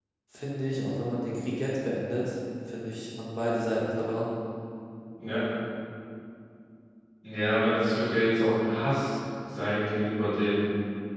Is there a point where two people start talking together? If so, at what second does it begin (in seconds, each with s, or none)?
none